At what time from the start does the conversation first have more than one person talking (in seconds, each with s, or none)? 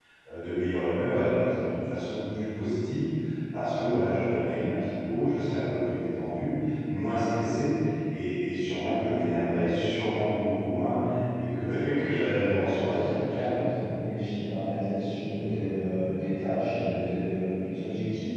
12.4 s